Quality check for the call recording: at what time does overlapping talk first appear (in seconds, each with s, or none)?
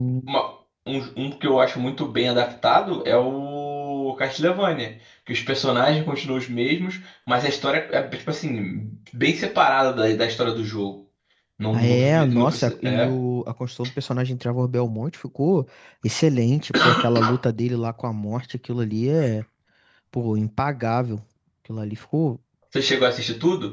11.7 s